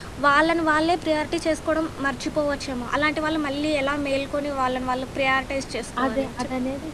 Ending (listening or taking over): taking over